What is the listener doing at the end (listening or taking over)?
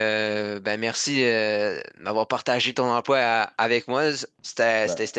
listening